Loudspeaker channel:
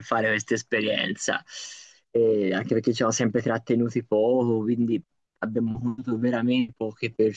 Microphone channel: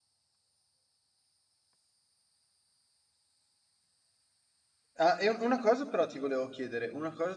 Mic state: user only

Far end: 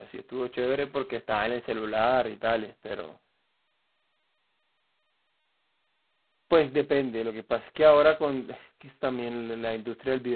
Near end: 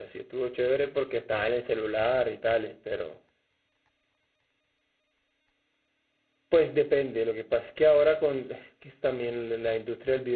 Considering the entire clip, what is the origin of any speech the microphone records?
echo only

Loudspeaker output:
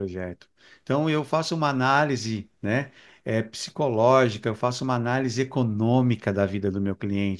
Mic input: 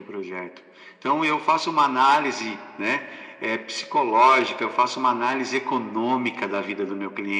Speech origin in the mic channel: echo only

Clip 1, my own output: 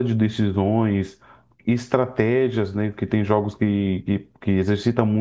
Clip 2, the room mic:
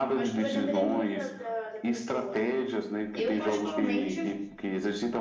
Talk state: both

